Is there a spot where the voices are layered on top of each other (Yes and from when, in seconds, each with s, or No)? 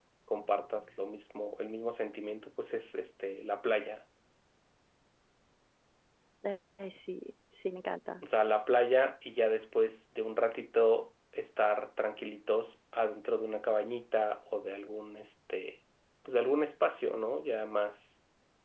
No